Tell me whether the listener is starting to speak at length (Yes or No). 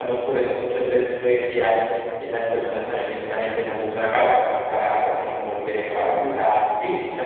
No